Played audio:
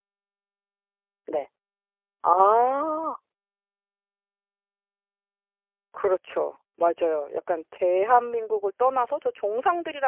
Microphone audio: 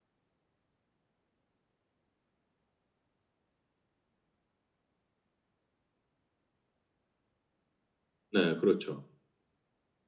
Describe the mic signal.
user only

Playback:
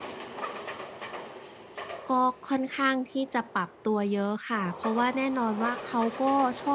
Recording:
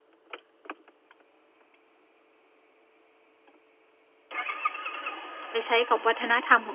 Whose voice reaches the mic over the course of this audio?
user only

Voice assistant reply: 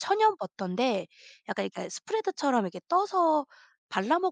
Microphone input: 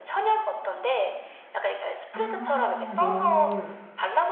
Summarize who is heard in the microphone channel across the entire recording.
both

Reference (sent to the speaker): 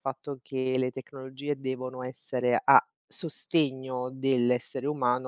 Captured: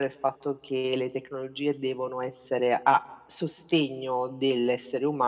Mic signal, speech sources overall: echo only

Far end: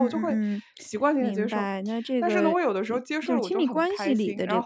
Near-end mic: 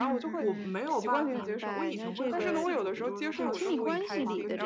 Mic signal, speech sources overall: both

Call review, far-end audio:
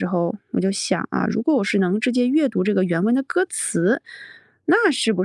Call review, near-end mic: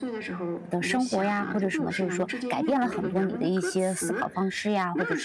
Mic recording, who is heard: both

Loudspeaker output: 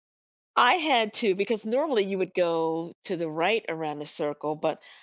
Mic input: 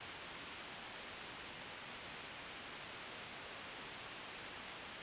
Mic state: neither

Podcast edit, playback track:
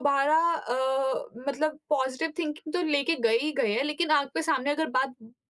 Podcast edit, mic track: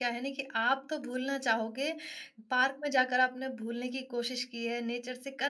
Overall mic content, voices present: user only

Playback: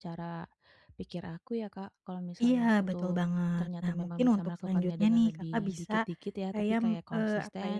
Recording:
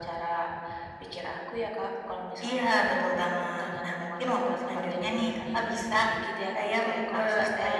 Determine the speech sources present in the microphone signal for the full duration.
echo only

